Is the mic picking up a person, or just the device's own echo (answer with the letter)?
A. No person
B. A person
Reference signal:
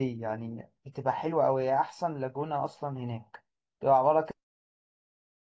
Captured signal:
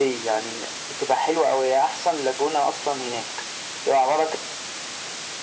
A